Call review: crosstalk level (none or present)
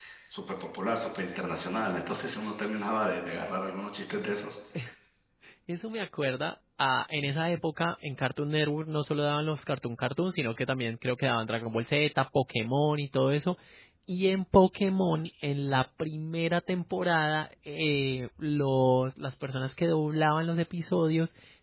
none